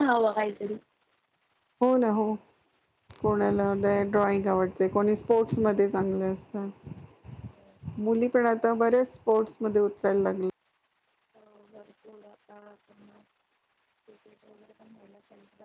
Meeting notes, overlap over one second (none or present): none